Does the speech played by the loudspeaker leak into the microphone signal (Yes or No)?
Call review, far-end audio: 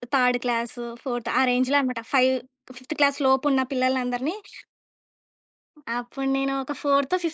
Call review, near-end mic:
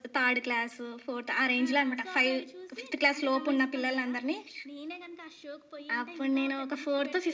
Yes